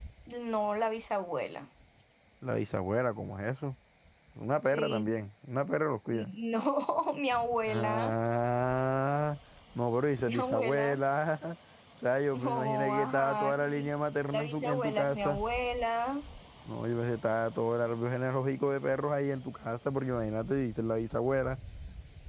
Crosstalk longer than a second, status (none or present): present